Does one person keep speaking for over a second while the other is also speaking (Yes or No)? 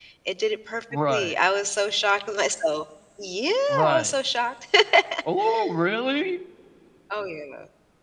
No